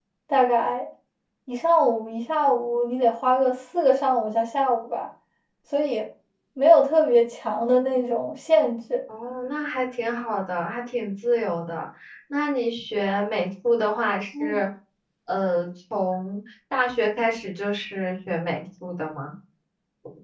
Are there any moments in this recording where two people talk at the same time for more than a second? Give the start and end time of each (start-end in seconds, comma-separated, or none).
none